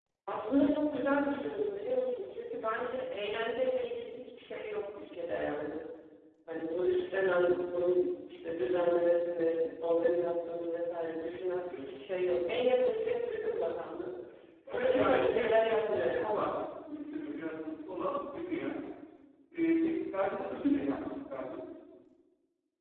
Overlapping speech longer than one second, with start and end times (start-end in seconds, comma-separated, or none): 14.7-16.5